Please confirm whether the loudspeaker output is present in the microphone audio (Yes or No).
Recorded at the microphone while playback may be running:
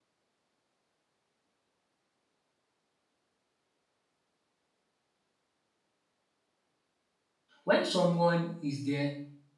No